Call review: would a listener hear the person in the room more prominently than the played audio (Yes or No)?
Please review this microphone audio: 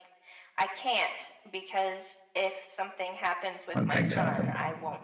Yes